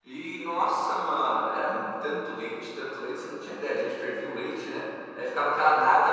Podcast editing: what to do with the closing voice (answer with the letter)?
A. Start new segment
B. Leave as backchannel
B